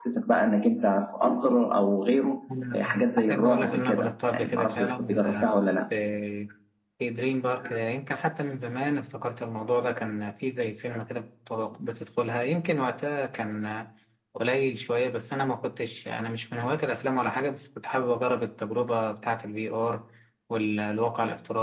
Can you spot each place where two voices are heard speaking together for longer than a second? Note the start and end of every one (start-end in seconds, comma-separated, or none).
2.7-5.8